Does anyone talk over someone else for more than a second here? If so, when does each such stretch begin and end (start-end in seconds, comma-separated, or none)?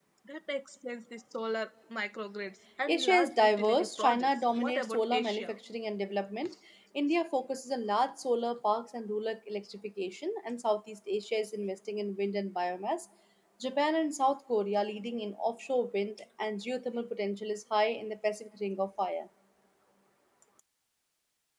2.9-5.5